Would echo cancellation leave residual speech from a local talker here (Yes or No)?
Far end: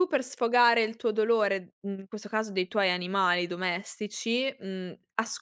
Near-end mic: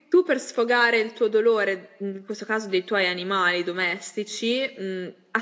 No